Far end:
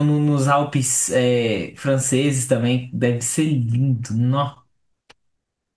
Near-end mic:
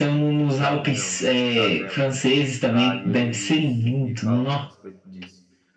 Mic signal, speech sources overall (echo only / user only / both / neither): both